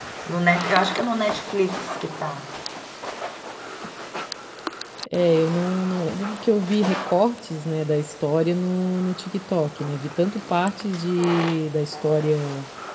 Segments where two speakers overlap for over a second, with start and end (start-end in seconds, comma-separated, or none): none